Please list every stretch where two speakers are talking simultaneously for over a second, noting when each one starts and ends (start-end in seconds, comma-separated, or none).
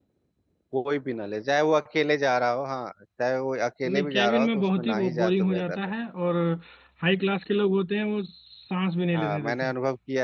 3.9-5.8